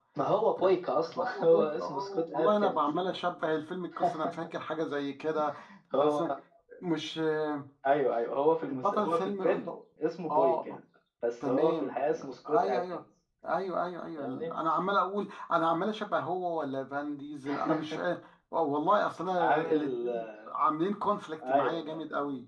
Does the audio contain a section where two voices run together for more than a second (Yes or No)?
Yes